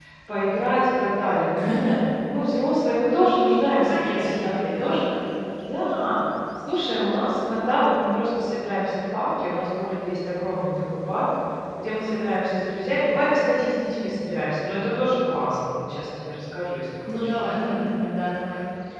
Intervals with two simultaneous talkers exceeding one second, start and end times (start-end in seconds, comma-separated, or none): 3.7-5.0